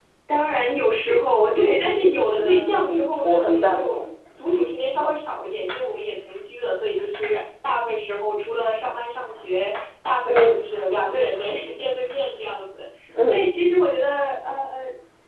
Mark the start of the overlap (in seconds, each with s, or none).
2.4 s